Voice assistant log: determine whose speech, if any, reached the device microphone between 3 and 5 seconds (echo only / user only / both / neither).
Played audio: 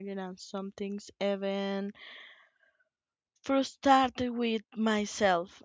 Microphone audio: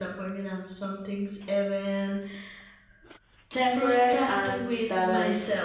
both